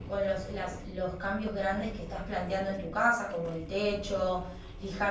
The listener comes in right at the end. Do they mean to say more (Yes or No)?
No